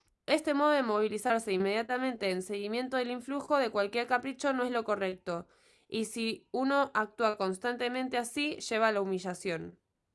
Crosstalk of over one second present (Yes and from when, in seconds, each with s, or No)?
No